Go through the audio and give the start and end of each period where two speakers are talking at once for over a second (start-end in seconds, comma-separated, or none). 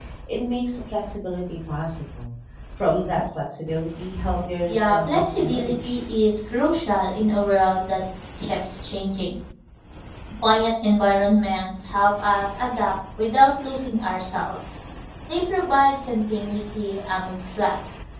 4.7-6.0